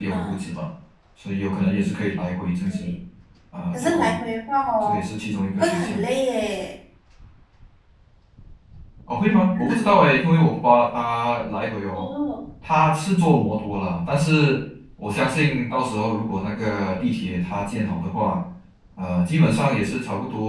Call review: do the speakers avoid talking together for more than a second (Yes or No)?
Yes